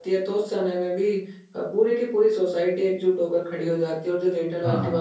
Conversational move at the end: listening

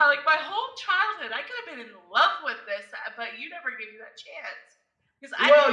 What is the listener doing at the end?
taking over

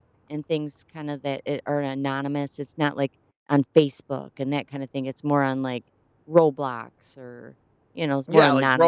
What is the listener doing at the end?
taking over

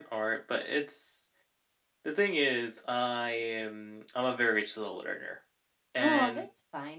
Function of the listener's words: taking over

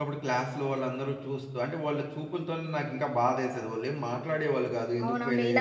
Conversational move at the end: taking over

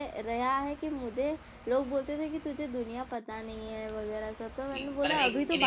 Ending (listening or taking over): taking over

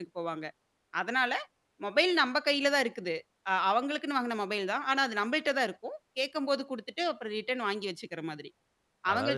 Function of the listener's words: taking over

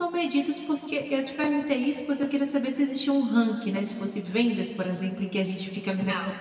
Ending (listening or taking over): listening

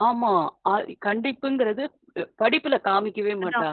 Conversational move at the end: taking over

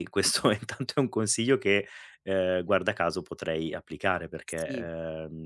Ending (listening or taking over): listening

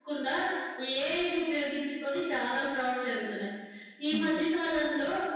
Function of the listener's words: listening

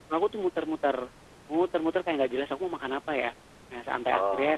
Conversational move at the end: listening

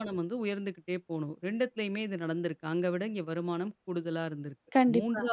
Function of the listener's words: listening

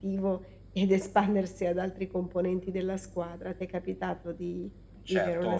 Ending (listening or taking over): taking over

